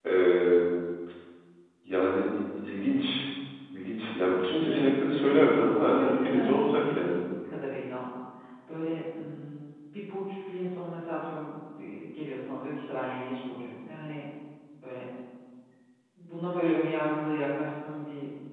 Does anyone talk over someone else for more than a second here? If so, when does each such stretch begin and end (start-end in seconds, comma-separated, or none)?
4.6-7.2